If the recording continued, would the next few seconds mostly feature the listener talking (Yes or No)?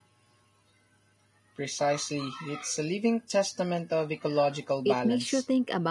Yes